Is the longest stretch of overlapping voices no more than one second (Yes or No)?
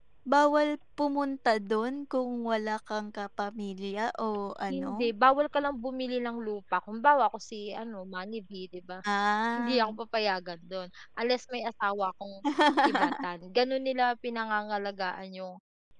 Yes